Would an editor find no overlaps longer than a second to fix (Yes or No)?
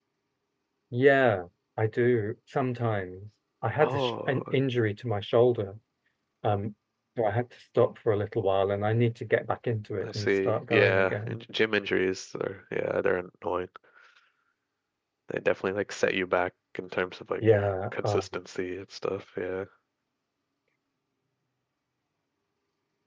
No